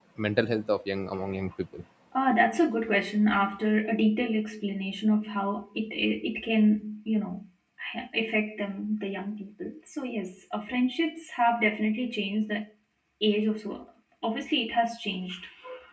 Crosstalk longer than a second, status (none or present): none